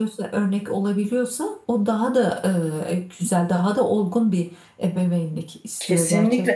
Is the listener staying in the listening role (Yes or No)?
No